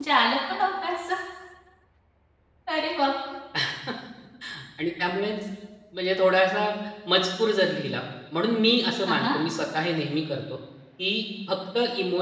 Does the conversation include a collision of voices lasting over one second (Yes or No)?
No